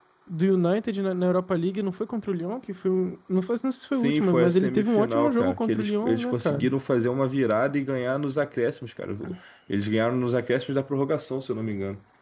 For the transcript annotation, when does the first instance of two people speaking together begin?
3.9 s

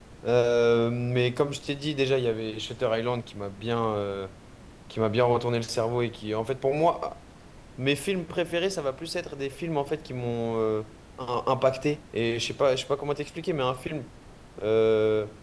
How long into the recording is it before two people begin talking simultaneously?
none

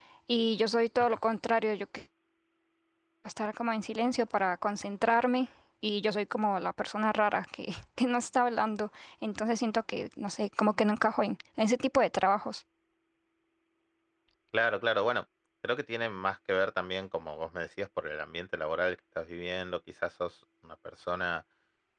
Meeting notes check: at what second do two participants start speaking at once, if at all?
none

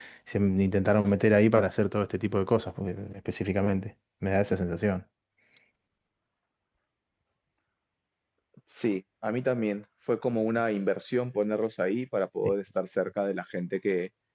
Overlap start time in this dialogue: none

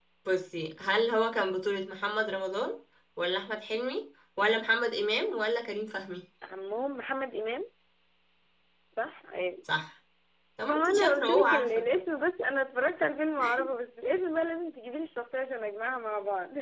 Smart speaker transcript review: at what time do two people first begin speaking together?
10.7 s

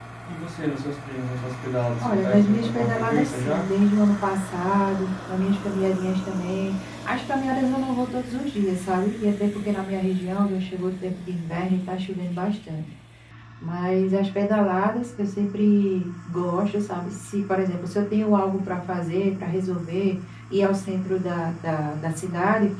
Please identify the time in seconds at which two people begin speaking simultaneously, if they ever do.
2.0 s

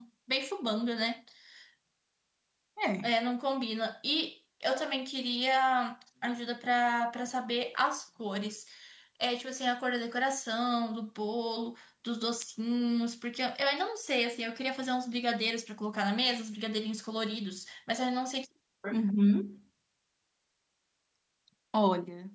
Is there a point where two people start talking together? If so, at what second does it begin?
none

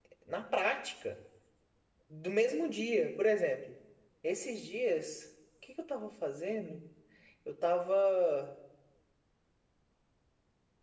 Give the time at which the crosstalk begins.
none

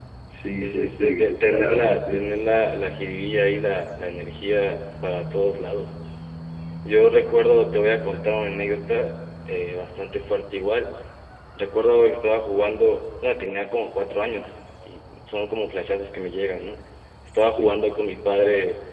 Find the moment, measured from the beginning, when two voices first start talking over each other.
0.6 s

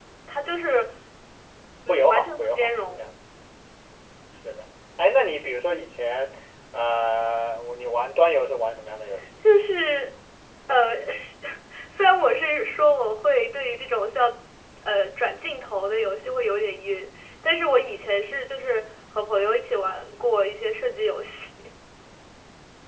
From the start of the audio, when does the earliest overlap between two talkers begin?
1.9 s

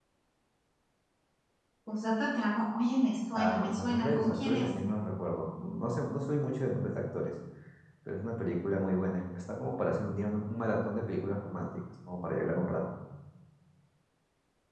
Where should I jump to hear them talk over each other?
3.4 s

